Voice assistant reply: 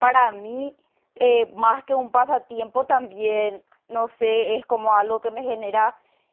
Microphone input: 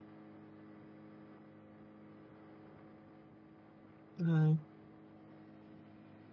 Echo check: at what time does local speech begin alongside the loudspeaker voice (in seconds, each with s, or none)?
4.2 s